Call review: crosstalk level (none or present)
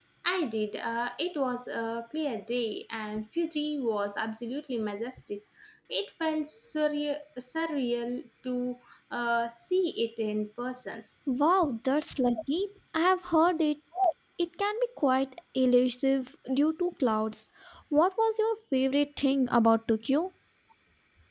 none